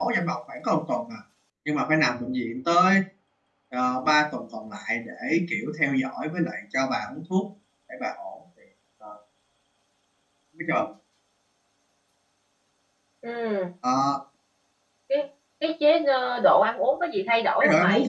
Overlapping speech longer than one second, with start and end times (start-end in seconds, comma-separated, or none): none